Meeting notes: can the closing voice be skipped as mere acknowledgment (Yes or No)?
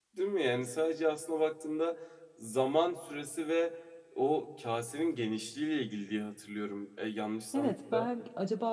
No